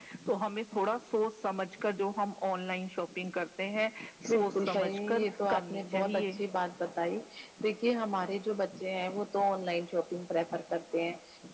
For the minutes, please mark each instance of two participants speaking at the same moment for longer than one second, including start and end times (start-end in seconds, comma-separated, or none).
4.3-6.3